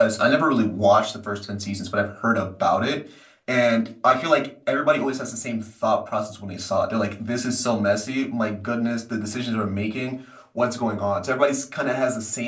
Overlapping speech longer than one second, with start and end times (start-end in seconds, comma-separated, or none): none